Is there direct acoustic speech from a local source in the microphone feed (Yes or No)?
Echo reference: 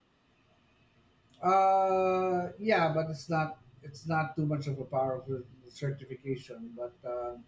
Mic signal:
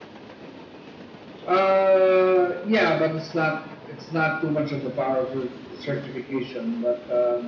No